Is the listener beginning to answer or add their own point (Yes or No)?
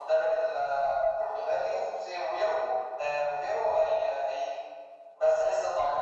No